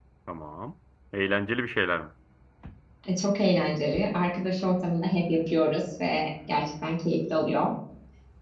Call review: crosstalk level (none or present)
none